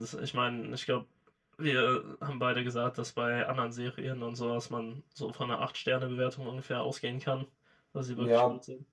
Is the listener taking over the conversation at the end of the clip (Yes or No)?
Yes